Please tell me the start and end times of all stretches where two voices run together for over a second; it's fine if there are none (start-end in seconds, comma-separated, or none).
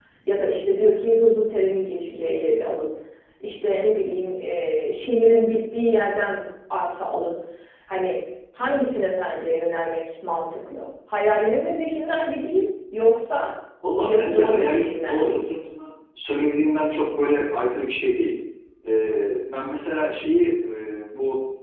14.0-15.5